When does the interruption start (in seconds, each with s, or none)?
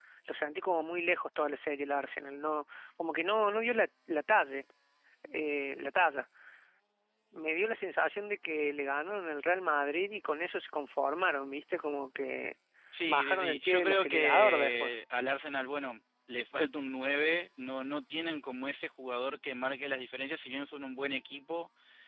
13.1 s